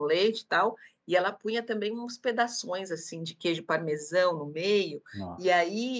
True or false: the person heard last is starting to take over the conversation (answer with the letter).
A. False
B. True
A